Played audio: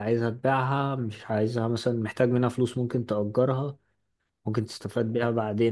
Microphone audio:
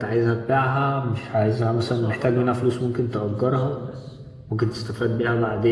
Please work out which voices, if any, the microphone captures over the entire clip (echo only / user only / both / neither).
both